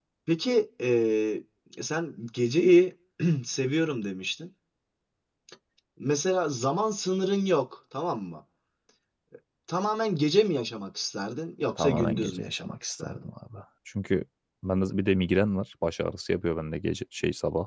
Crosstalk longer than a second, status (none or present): present